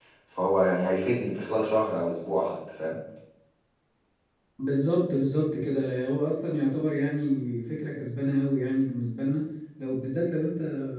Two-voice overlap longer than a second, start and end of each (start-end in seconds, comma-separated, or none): none